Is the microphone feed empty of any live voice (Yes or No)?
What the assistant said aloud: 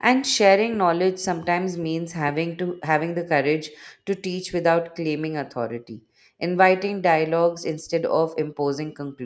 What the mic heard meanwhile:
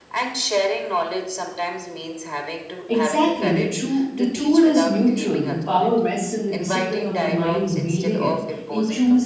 No